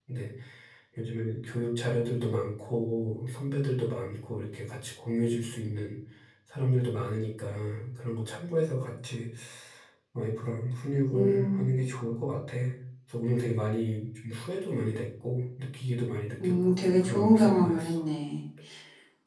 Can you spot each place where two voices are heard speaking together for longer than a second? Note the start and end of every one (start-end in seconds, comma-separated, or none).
16.4-18.0